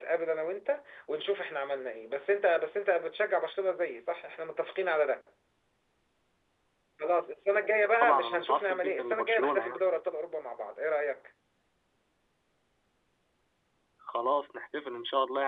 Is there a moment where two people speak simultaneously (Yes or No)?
Yes